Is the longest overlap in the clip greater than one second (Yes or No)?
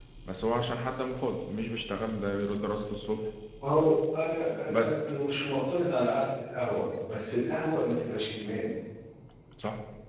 No